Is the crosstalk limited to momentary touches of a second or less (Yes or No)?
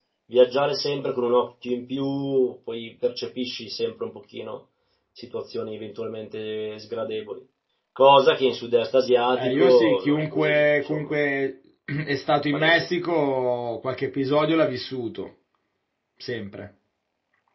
No